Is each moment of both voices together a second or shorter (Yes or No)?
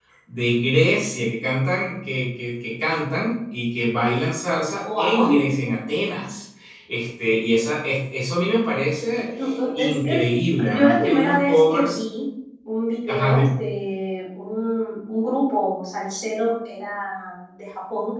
No